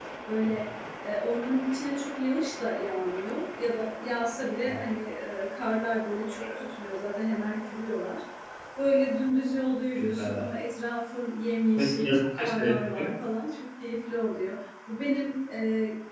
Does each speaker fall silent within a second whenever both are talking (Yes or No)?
No